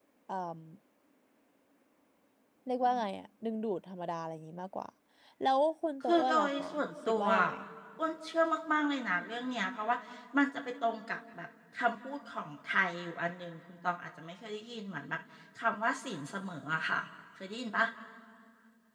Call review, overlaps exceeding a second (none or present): present